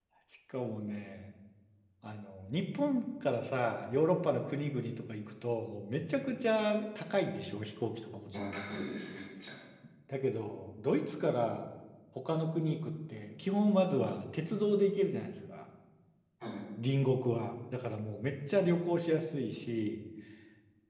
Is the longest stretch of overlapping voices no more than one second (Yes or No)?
Yes